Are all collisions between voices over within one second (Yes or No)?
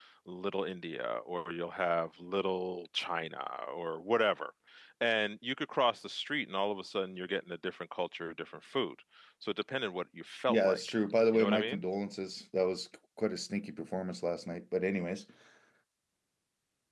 Yes